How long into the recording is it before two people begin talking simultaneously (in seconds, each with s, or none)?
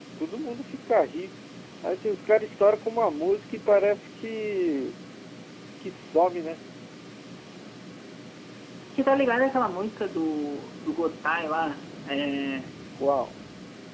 none